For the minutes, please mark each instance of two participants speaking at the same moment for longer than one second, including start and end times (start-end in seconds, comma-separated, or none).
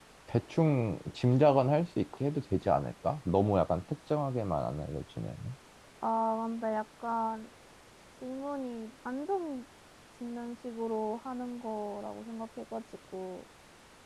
none